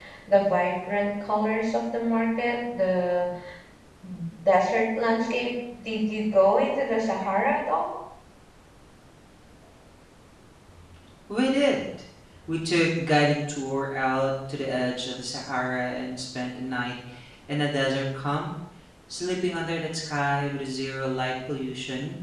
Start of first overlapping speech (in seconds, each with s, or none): none